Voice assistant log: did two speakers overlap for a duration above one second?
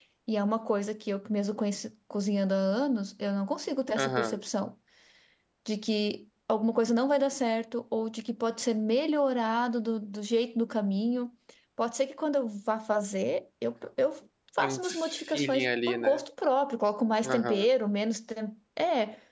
Yes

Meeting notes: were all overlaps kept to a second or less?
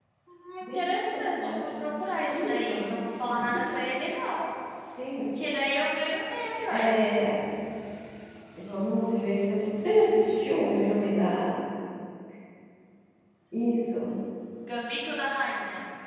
No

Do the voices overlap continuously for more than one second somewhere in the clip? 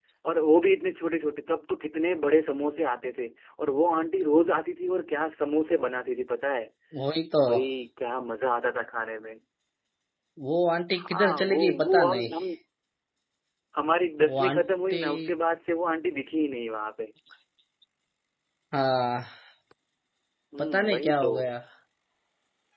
Yes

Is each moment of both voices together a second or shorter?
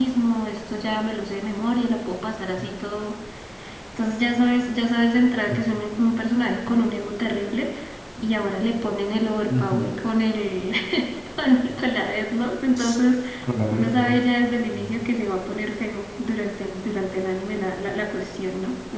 Yes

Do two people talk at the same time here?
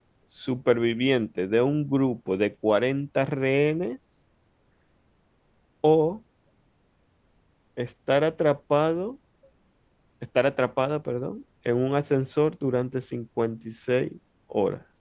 No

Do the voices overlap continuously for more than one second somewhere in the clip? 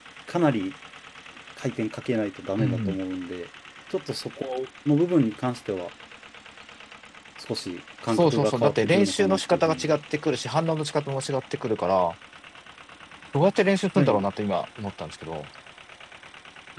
Yes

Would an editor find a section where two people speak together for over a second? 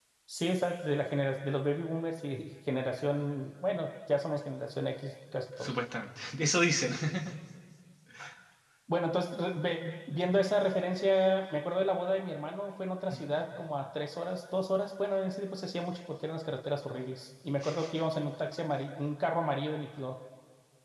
No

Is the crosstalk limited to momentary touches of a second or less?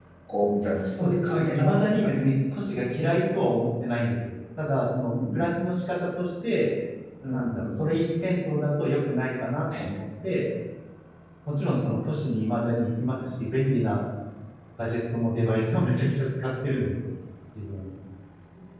No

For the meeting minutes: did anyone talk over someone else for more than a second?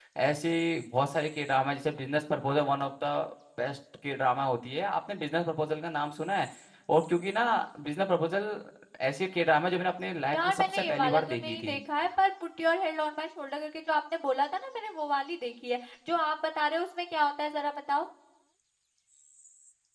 Yes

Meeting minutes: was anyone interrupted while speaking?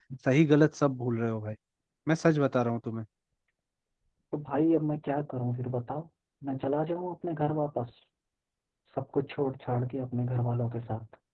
No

